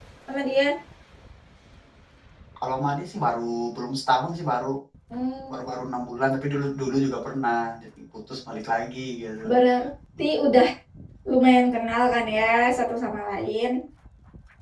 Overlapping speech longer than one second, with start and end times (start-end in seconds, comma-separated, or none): none